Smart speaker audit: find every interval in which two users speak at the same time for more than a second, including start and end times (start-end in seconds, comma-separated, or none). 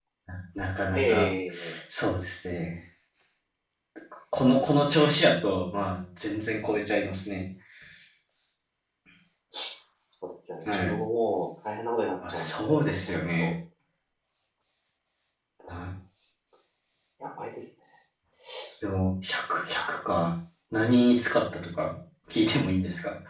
12.3-13.5